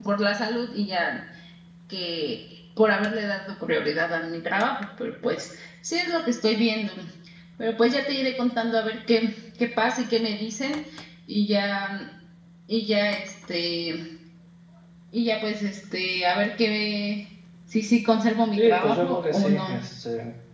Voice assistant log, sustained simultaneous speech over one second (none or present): present